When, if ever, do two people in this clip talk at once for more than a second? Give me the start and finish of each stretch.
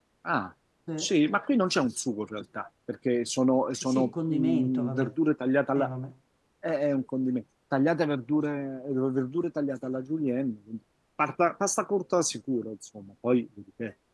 3.8-5.1

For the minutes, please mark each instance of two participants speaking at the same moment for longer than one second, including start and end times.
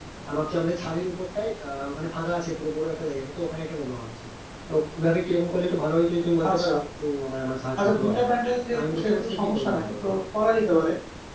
8.7-10.1

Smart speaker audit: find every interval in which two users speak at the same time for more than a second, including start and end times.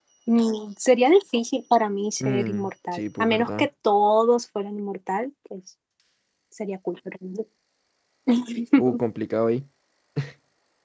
2.2-3.7

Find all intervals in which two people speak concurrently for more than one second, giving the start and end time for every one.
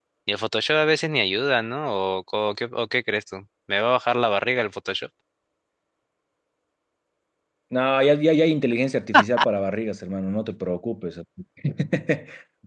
none

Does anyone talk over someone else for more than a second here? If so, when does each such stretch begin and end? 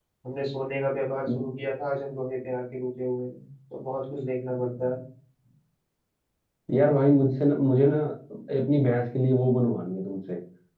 none

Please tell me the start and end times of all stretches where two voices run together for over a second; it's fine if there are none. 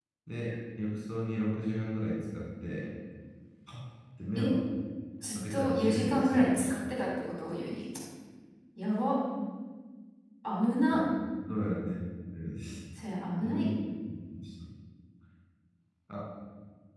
5.5-6.7

